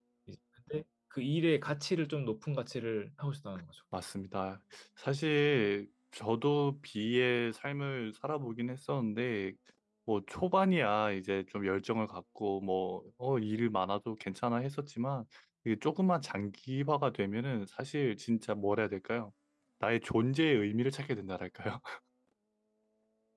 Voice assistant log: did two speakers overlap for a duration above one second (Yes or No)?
No